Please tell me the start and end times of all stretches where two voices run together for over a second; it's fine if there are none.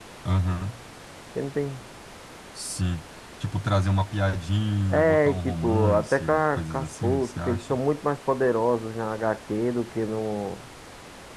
4.9-7.8

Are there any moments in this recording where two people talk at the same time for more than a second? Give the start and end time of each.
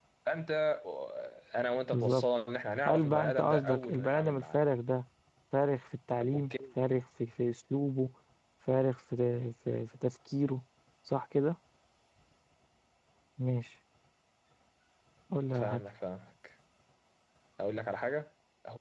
2.9-4.6

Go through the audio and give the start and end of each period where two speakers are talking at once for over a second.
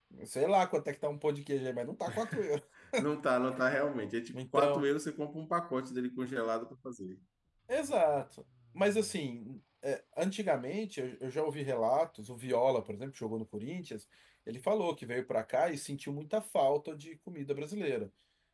none

